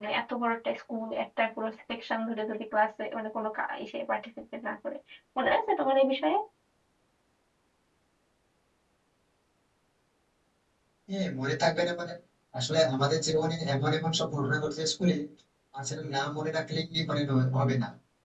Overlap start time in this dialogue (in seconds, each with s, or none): none